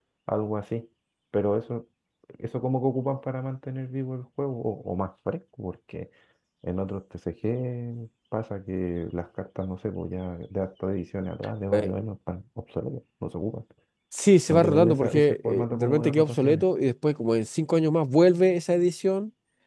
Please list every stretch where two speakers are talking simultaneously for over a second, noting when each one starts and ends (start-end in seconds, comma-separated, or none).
14.5-16.6